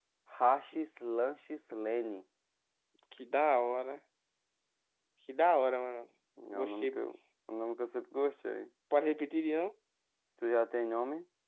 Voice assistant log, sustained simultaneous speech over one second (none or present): none